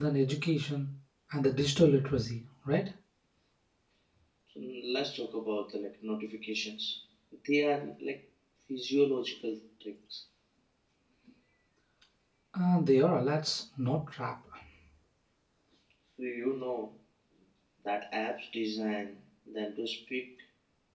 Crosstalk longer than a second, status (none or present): none